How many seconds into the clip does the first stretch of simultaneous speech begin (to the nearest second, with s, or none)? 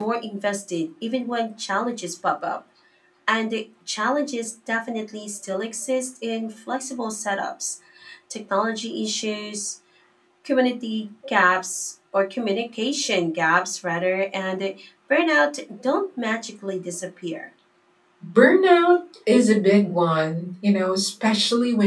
none